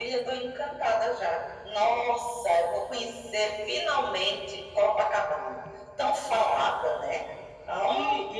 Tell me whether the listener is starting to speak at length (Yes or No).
Yes